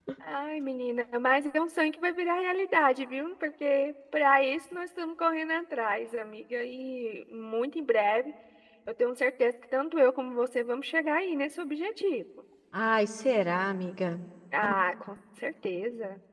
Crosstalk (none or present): none